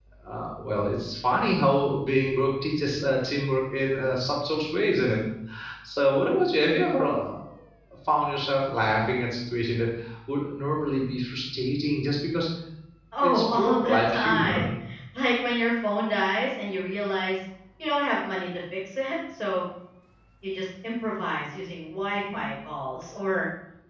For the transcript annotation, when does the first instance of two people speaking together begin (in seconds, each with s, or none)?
13.2 s